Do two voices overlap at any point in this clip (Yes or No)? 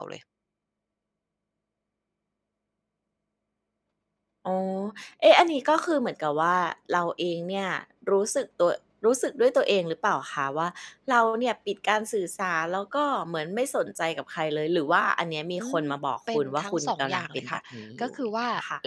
Yes